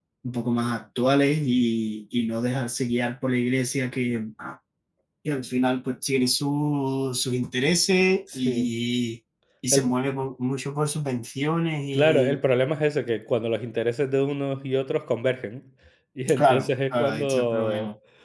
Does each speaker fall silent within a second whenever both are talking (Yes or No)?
No